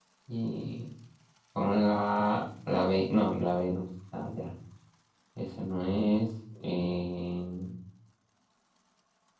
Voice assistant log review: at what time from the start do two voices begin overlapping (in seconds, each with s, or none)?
none